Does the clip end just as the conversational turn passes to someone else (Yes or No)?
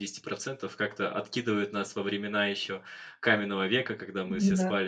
No